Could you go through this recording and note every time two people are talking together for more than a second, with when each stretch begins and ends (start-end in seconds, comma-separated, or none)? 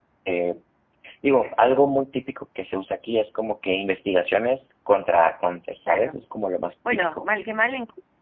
none